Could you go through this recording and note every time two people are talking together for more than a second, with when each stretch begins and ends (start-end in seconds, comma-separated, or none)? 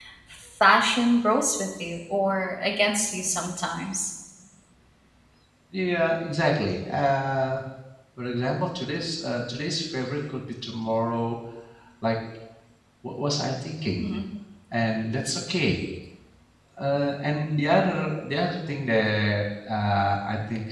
none